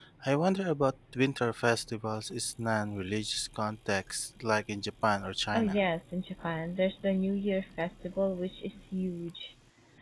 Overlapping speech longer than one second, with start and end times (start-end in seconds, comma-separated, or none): none